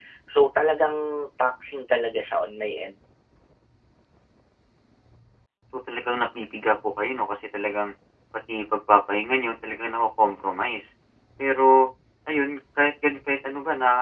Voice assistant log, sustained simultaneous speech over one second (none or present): none